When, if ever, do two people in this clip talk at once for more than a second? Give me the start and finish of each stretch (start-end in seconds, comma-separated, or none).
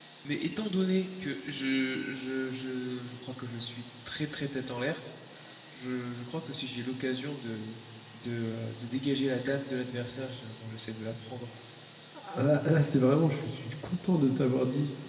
none